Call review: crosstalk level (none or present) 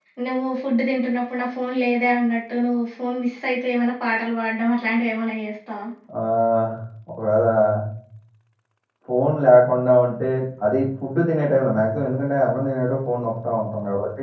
none